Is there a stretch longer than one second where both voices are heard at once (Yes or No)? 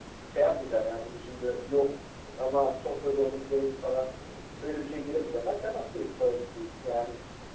No